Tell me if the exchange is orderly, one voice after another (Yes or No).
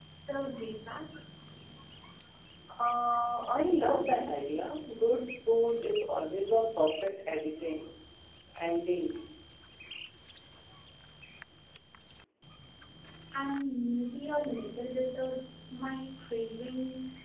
Yes